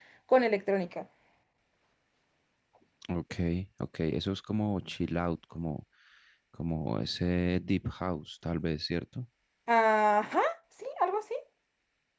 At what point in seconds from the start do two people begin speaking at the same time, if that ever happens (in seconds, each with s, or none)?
none